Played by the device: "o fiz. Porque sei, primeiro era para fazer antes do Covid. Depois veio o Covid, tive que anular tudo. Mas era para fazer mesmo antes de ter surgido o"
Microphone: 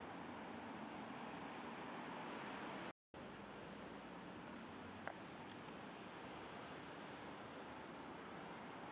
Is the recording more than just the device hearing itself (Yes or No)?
No